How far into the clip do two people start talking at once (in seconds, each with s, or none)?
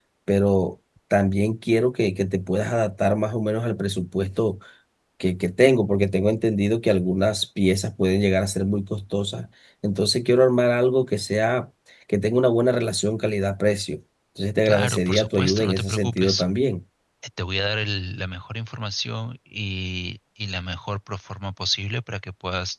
14.7 s